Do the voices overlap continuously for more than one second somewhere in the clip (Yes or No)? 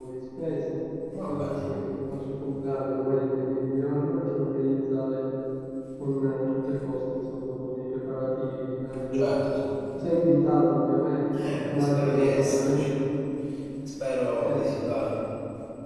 Yes